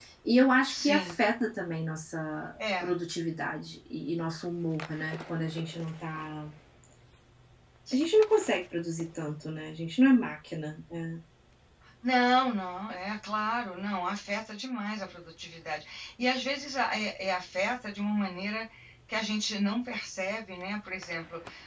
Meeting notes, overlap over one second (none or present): none